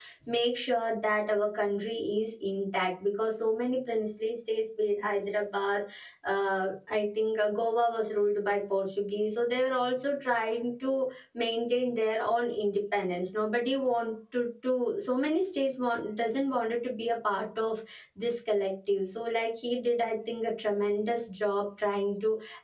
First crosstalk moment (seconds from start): none

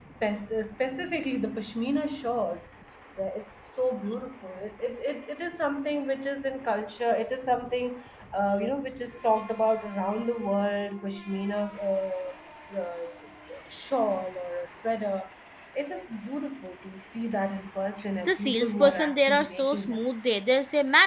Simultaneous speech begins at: 18 s

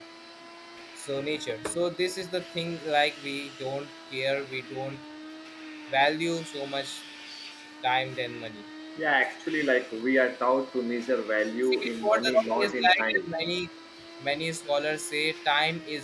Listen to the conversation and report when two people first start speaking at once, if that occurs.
12 s

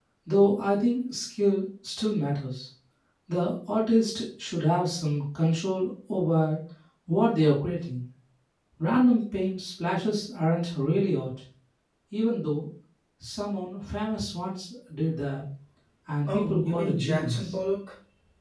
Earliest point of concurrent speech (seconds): 16 s

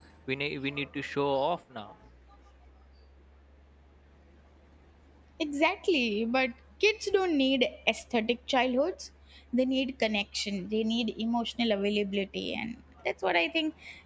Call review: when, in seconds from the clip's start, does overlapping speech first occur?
none

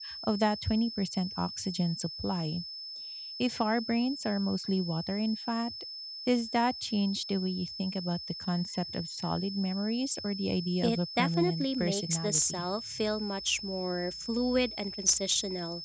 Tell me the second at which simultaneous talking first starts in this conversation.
11 s

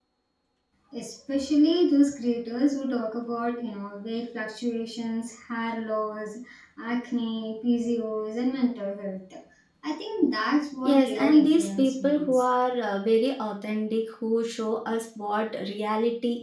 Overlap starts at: 11 s

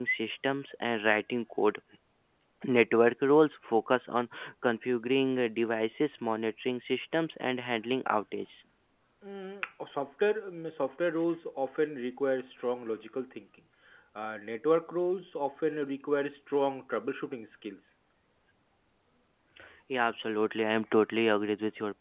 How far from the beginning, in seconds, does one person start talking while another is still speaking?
none

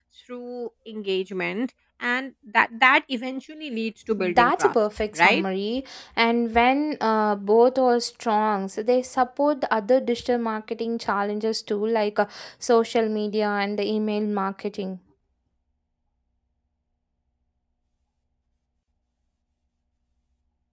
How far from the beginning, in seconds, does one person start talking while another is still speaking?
4 s

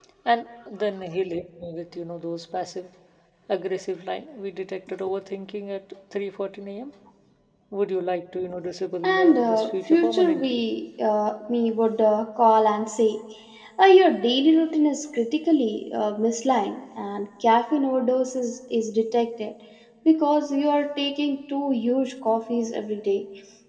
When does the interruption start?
9 s

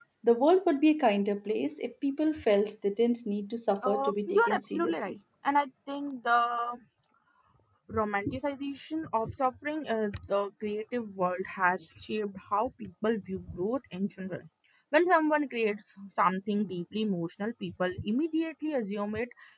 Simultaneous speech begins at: 4 s

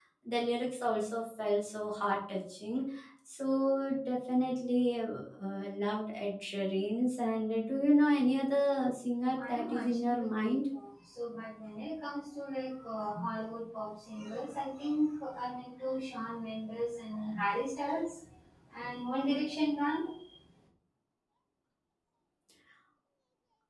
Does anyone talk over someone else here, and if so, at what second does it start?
9 s

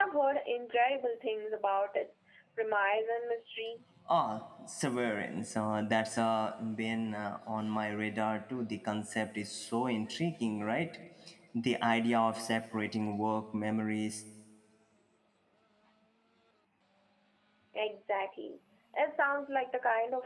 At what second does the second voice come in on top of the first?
none

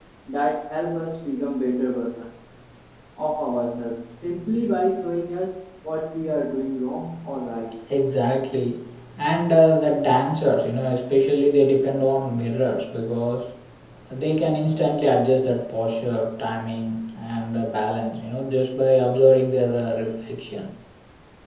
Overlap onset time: none

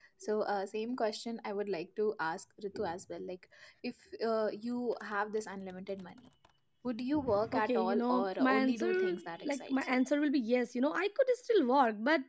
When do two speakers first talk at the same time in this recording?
8 s

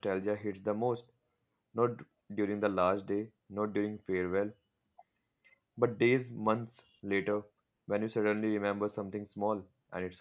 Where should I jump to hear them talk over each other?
none

